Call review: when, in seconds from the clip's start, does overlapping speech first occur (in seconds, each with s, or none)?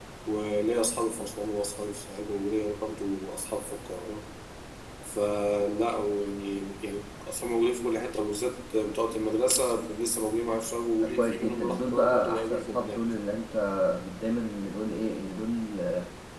11.0 s